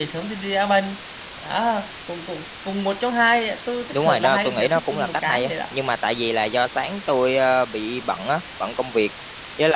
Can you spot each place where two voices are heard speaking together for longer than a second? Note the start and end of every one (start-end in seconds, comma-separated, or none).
3.9-5.5